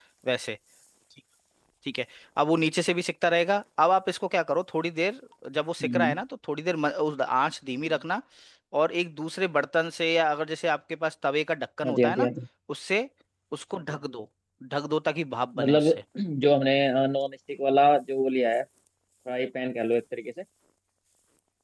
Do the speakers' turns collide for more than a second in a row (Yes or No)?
No